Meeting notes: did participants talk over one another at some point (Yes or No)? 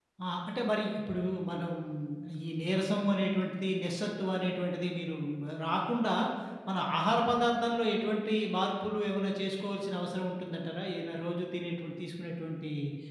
No